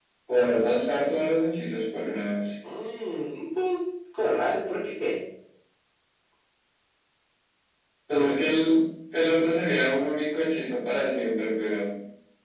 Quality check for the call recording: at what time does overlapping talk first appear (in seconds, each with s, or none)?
none